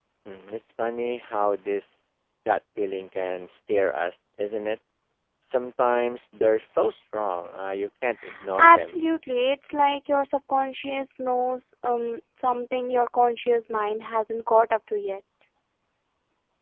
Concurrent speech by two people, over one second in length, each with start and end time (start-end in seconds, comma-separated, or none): none